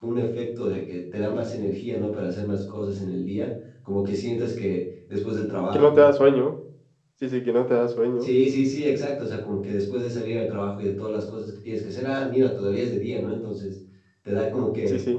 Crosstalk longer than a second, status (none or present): none